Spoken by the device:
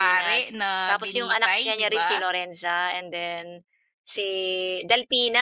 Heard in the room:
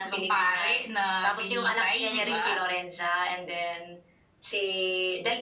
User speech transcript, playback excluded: Mm.

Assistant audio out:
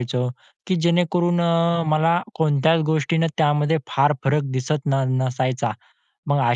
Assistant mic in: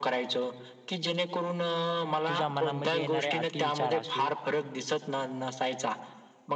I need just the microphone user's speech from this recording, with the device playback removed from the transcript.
तुझ्या मनामध्ये येणारे अतिविचार असू

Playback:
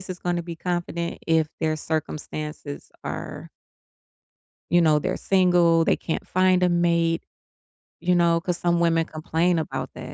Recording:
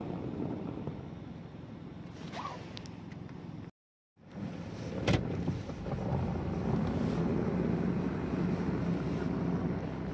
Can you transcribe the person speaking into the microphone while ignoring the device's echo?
none

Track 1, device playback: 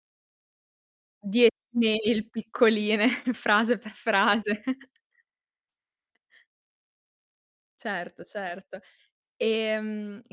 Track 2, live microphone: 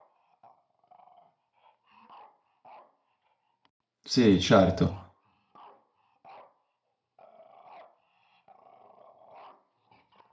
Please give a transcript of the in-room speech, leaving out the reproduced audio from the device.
Sì, certo.

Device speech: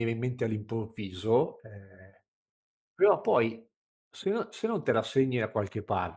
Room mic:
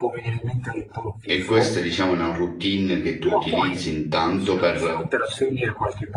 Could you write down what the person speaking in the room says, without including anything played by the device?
e questa diciamo è una routine che tu utilizzi intanto per,

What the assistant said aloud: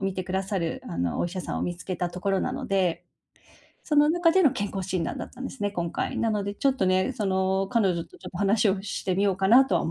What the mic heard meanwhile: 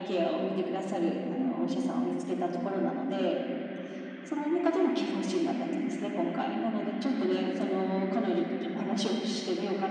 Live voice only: none

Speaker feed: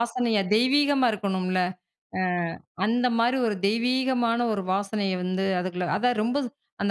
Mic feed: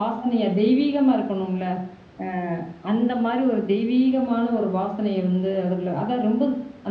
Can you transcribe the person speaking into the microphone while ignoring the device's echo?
none

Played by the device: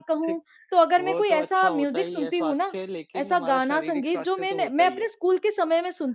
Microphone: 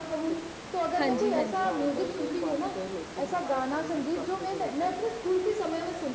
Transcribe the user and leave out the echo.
हाँ जी, हाँ जी।

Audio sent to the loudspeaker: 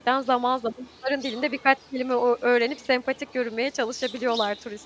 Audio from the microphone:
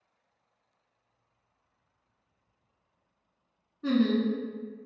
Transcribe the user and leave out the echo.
Hı hı.

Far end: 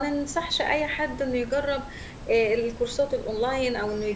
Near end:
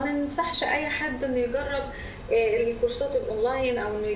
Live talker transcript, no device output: none

